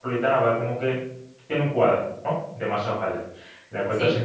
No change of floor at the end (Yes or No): Yes